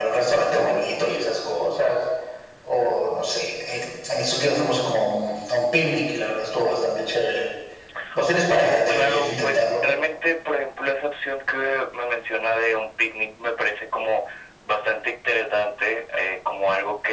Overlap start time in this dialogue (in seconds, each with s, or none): 8.5 s